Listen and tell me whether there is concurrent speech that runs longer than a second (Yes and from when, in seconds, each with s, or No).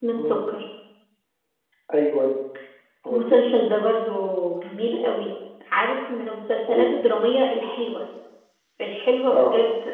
No